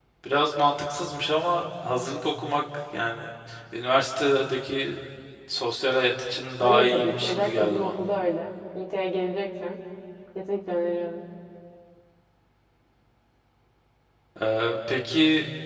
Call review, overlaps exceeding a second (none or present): present